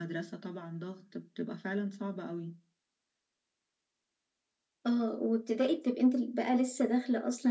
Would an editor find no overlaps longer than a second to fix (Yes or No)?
Yes